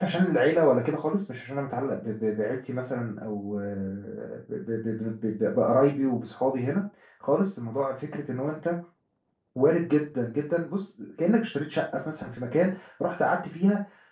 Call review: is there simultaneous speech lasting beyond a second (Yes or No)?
No